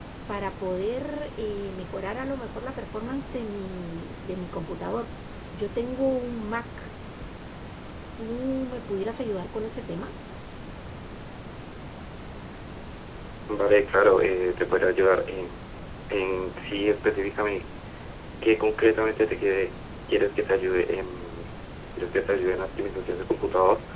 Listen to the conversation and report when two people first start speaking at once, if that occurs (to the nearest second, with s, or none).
none